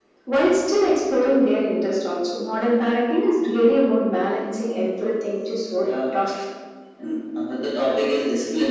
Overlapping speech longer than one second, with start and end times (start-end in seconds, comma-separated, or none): none